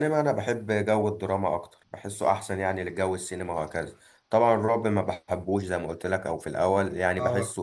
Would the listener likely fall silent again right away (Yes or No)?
Yes